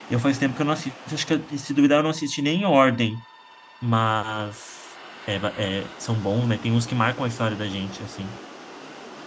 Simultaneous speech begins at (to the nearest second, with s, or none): none